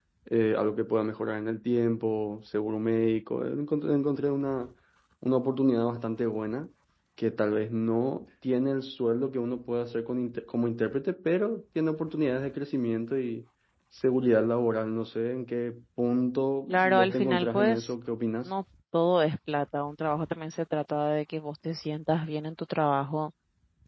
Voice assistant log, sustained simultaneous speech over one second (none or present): present